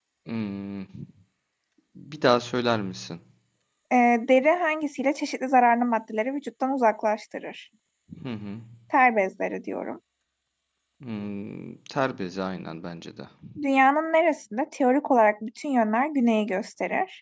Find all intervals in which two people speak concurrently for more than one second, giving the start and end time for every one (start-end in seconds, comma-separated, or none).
none